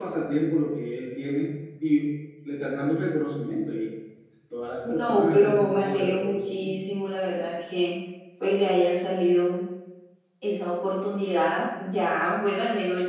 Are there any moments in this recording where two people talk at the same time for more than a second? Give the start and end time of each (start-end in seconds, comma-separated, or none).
4.8-6.8